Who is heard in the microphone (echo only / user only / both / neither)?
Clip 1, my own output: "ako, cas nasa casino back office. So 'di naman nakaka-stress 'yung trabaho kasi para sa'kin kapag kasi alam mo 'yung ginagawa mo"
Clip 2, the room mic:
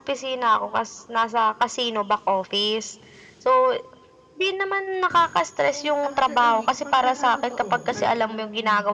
both